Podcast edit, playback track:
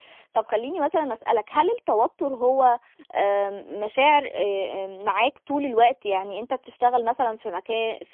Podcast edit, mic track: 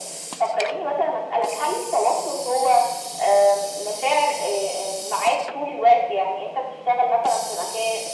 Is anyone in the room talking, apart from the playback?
No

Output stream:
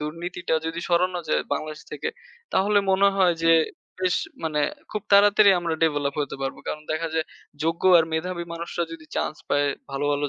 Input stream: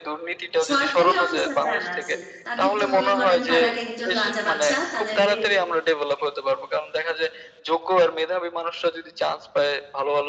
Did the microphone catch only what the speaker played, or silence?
No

